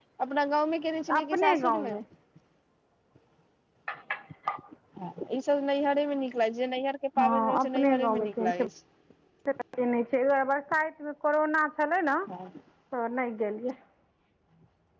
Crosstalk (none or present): present